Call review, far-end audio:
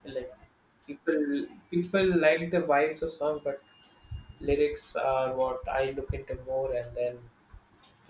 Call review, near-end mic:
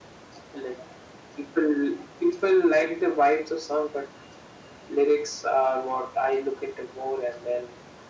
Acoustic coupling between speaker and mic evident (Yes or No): Yes